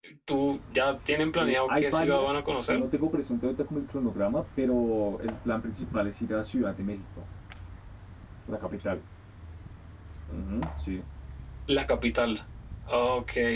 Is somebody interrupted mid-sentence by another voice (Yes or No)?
Yes